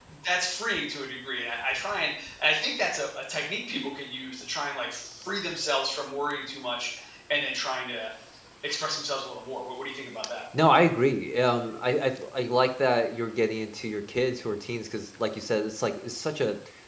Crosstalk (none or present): none